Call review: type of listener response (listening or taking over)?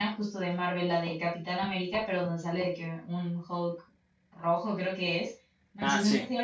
listening